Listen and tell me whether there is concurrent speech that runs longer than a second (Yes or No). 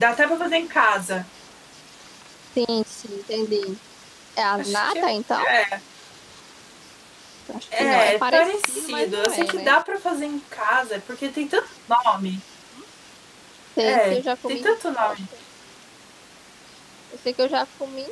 Yes